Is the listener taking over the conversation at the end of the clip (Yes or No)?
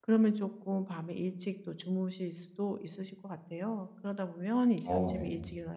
No